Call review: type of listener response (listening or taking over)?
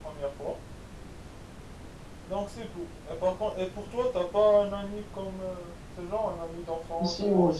taking over